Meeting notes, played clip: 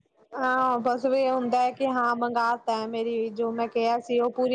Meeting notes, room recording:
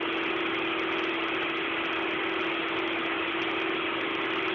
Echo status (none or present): none